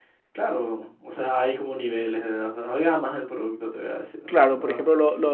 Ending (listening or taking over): taking over